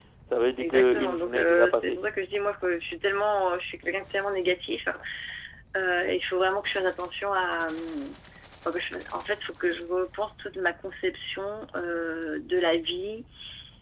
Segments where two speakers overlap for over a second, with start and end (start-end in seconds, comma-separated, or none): 0.6-2.0